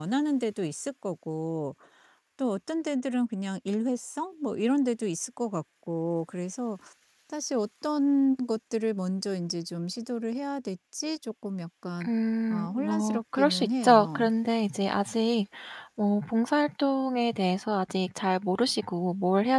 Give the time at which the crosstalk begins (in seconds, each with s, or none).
12.5 s